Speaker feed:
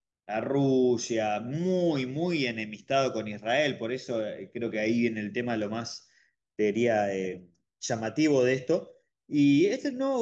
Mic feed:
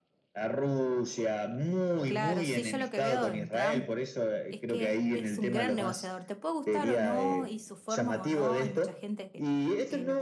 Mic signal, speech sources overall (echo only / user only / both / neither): both